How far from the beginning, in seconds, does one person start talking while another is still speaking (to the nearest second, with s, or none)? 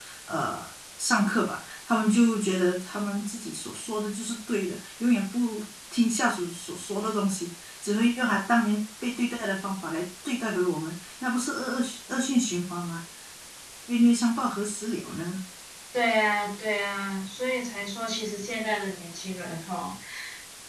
none